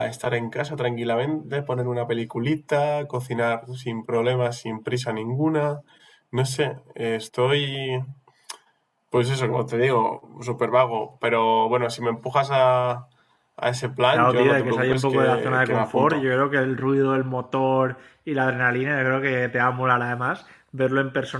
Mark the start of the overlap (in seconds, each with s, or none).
14.1 s